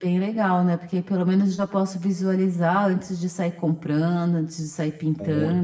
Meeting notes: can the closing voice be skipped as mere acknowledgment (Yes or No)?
No